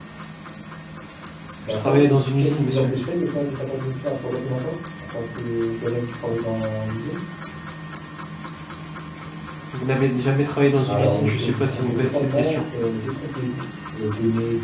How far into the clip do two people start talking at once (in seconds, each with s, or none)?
1.7 s